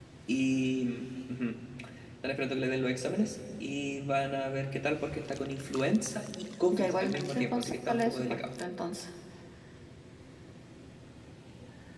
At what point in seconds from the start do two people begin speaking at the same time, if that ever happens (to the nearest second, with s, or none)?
7 s